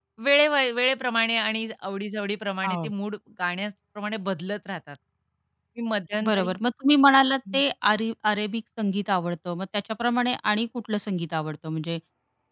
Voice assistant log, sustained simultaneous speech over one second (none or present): none